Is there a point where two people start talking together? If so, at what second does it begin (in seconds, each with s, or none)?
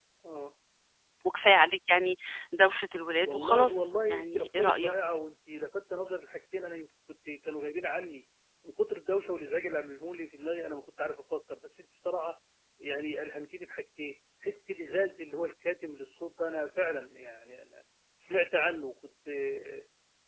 3.2 s